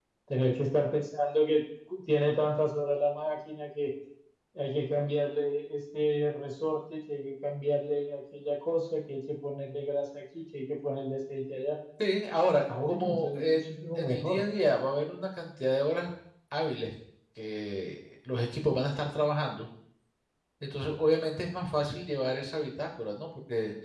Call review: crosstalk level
present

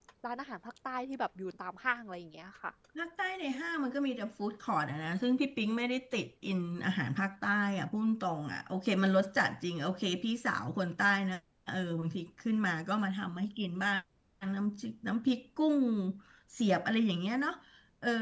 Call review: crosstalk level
none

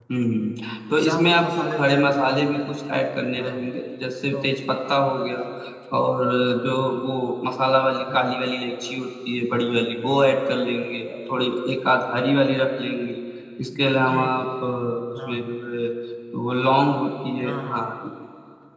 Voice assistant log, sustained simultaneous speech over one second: present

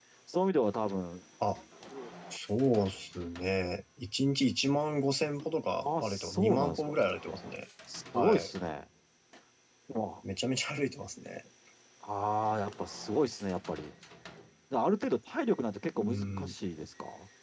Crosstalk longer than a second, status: present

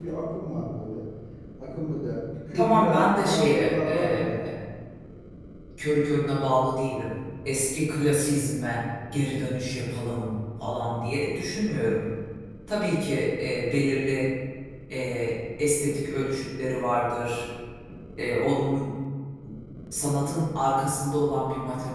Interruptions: present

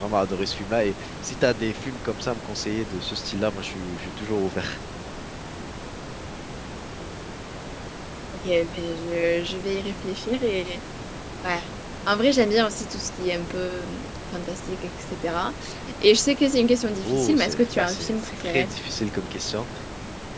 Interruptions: present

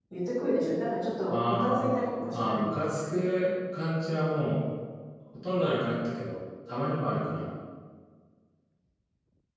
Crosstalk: present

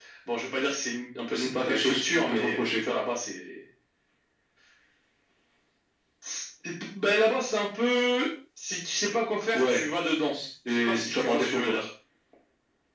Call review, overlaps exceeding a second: present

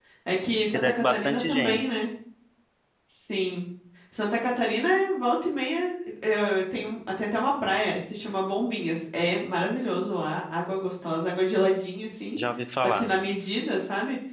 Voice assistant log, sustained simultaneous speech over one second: present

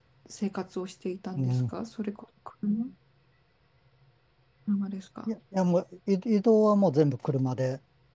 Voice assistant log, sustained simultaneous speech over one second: none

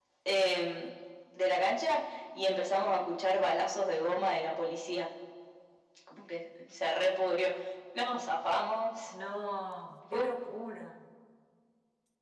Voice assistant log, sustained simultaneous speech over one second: none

